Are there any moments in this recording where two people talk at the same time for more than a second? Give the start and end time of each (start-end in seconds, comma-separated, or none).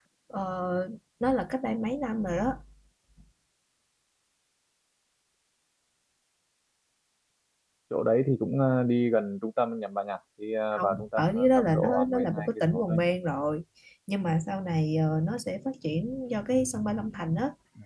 10.7-13.1